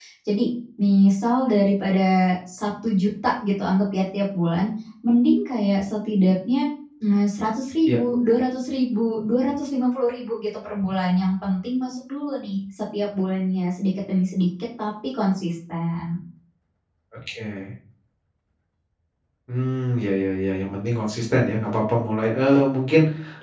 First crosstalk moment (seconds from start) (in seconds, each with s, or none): none